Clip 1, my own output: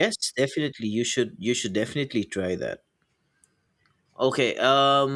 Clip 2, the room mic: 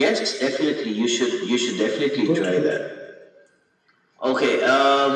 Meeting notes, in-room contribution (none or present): present